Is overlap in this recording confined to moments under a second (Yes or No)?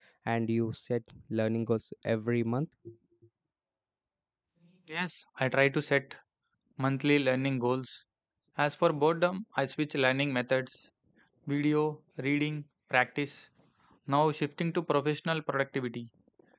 Yes